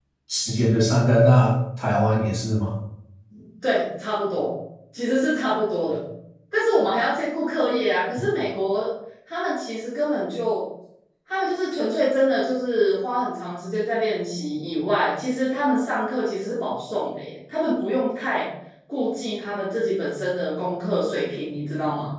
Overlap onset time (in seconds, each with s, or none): none